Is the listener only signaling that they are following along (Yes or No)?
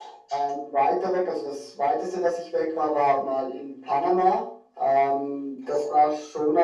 Yes